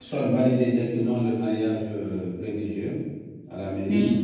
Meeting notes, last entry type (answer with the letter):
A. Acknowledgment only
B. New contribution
A